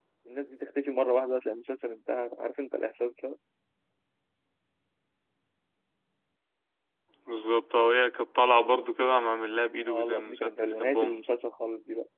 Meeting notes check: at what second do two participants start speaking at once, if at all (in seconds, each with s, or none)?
9.8 s